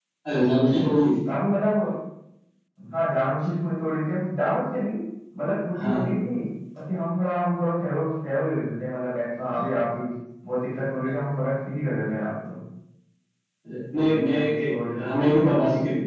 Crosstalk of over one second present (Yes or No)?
Yes